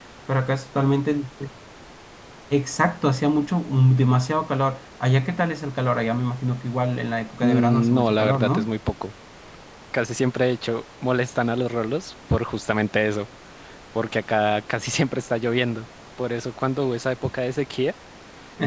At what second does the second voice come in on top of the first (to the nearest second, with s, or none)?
7 s